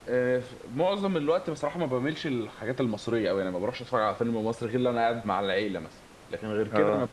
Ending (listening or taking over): listening